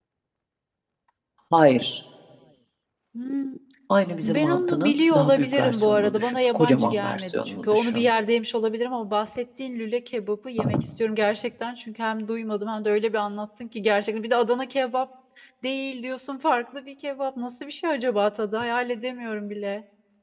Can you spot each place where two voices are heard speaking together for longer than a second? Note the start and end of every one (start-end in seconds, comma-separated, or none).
4.2-8.1